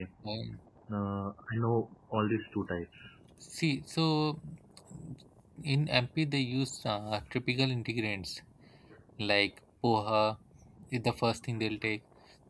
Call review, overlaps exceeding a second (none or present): none